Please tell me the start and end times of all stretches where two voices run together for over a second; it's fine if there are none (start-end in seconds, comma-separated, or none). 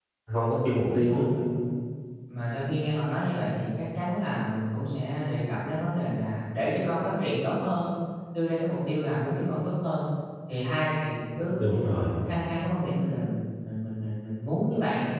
none